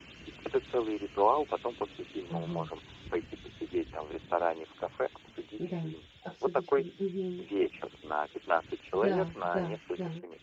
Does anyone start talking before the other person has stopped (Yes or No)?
Yes